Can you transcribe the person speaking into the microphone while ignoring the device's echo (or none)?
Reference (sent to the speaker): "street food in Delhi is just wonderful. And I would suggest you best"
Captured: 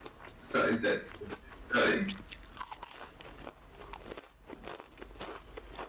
Sorry, sorry, sorry,